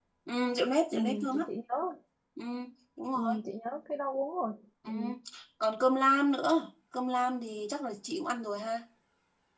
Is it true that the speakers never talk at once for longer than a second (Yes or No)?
Yes